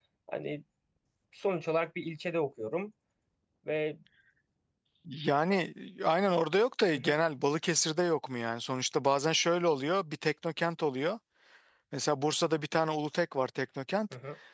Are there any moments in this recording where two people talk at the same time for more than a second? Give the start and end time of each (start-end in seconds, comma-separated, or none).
none